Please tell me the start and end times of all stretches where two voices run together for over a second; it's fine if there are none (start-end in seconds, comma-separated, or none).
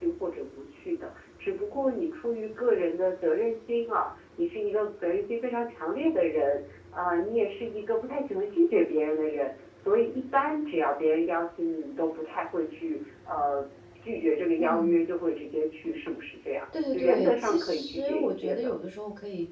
16.9-18.8